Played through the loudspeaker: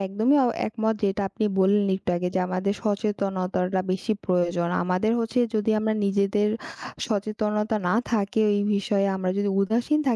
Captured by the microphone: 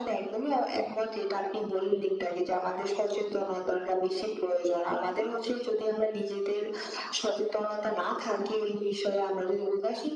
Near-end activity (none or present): present